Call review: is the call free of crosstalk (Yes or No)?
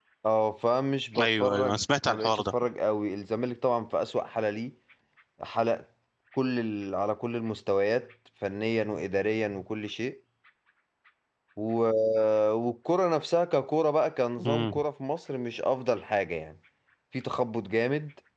No